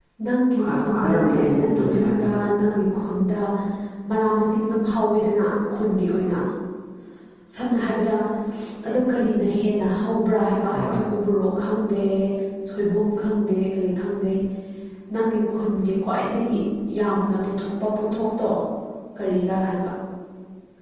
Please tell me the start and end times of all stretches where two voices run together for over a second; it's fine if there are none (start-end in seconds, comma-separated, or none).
0.7-2.3